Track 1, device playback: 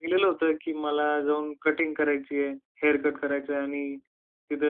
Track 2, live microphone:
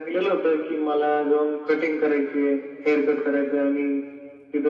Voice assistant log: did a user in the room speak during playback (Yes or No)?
No